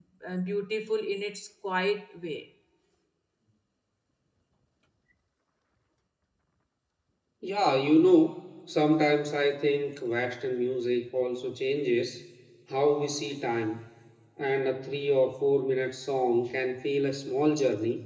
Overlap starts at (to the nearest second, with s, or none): none